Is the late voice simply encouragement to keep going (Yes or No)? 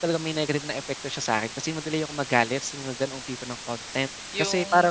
No